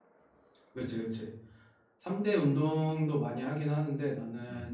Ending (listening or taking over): listening